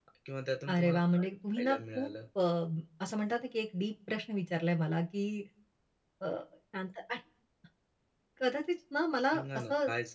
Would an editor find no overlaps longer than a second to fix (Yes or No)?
No